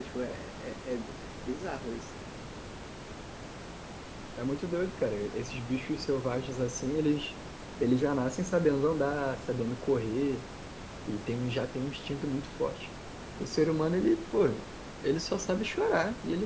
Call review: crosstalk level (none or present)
none